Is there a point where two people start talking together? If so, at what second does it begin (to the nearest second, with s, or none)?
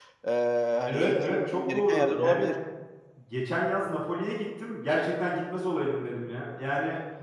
1 s